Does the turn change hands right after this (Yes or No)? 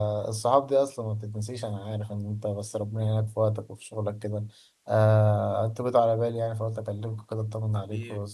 Yes